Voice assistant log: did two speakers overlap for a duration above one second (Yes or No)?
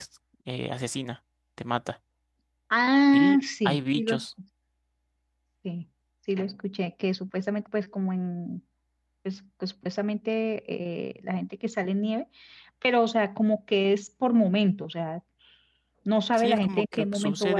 Yes